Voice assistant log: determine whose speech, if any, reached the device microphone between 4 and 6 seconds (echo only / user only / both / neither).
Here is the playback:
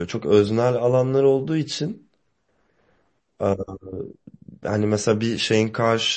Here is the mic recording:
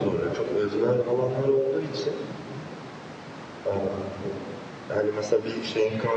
echo only